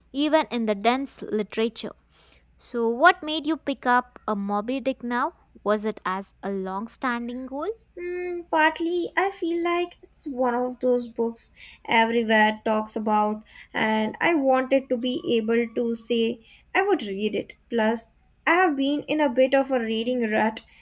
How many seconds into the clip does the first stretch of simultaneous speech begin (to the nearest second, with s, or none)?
none